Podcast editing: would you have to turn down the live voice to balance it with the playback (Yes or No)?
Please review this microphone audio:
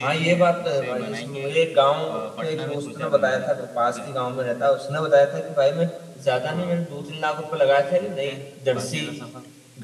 Yes